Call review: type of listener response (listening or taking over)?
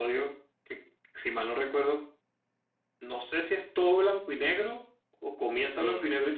taking over